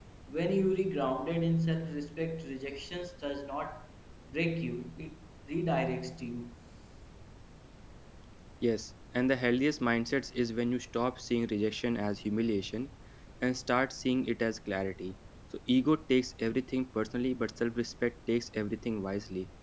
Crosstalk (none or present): none